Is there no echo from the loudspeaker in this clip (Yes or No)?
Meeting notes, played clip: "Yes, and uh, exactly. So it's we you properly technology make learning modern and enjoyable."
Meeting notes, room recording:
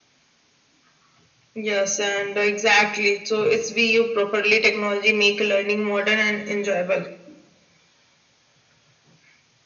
No